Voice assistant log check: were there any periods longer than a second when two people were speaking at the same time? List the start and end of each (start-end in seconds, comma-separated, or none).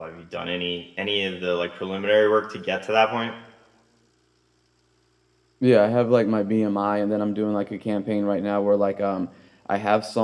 none